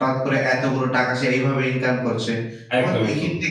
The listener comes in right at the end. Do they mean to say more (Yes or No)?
No